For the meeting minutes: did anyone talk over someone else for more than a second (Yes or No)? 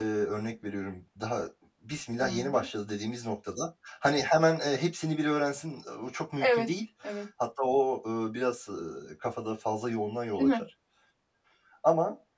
No